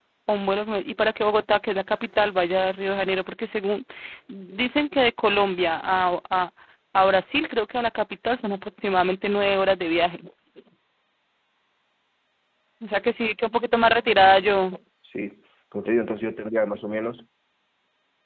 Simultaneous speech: No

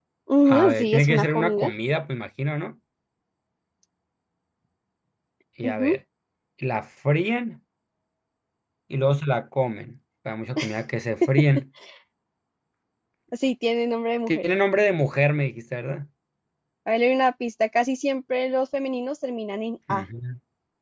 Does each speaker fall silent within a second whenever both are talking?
No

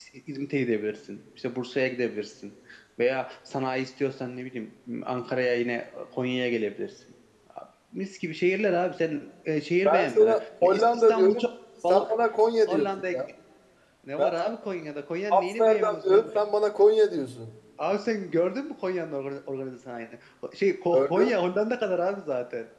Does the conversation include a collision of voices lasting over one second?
Yes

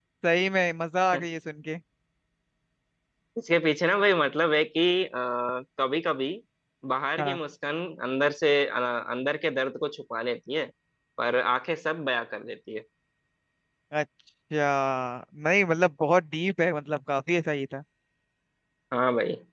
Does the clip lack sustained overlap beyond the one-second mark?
Yes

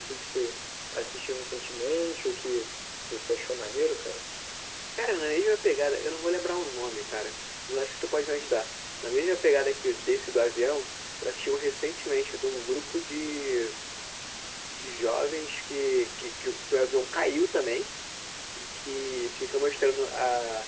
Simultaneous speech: No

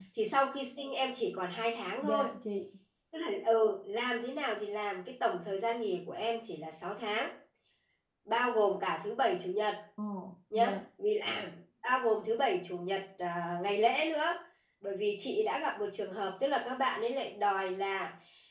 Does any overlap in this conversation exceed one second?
No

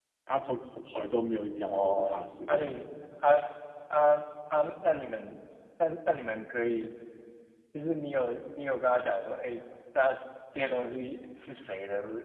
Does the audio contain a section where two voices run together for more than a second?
Yes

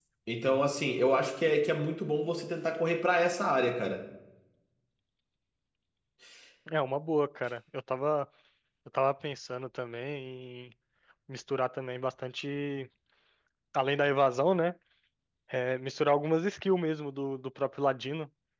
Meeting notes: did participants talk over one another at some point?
No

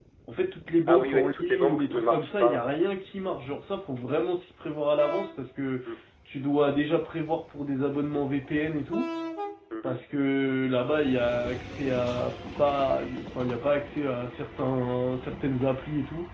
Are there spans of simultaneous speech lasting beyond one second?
Yes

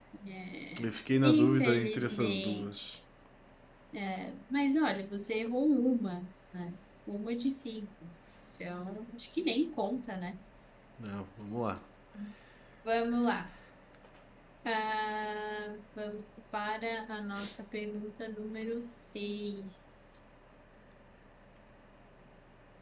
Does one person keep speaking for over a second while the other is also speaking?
Yes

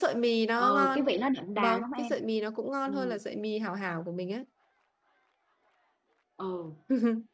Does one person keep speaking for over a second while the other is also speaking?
No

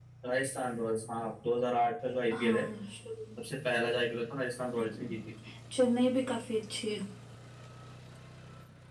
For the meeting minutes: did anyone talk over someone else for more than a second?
No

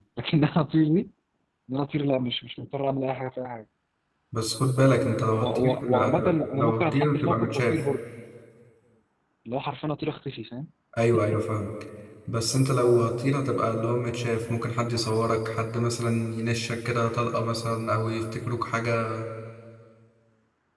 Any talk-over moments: Yes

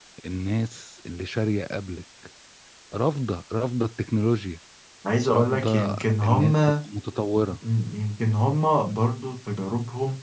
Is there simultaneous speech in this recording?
Yes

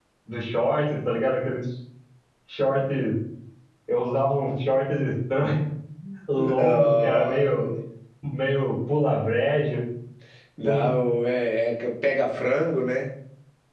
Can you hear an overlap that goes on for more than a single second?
Yes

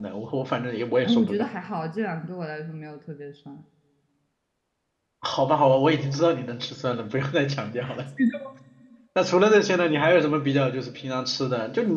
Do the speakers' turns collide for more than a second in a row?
No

